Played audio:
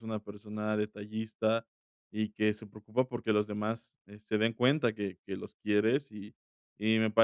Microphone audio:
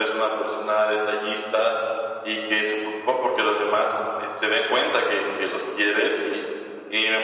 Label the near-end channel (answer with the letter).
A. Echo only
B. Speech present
A